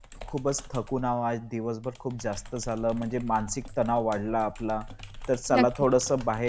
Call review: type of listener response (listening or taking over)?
listening